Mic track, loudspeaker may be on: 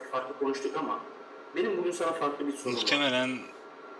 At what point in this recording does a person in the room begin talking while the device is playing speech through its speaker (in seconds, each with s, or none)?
2.6 s